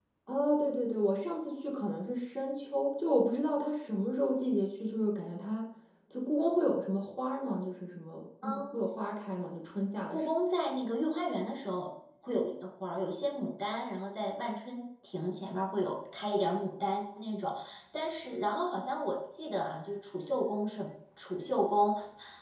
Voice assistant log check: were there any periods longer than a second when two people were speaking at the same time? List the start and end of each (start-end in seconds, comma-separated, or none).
none